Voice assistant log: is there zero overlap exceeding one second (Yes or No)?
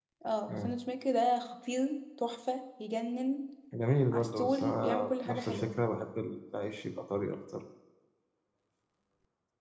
No